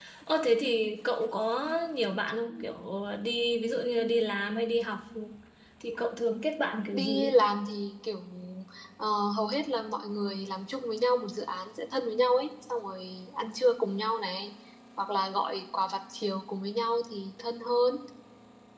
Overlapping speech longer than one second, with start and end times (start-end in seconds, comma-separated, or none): none